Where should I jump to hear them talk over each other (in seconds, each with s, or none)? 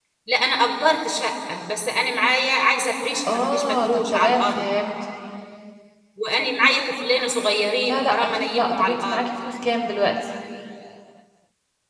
3.3 s